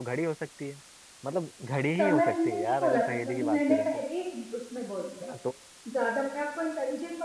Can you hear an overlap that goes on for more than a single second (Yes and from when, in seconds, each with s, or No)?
Yes, from 2.0 s